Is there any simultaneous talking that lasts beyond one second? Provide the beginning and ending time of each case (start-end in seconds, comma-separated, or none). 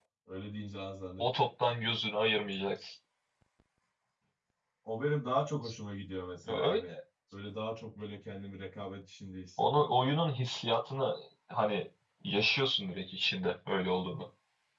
none